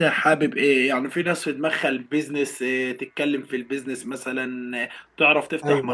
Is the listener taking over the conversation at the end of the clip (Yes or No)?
No